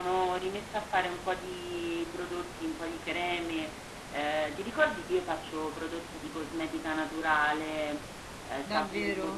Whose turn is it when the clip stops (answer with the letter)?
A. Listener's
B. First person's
A